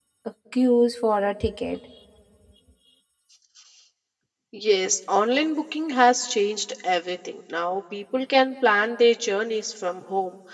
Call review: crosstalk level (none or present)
none